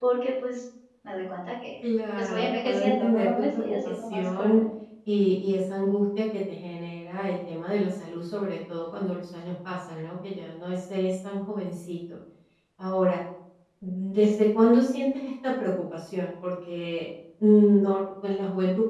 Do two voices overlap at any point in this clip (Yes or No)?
Yes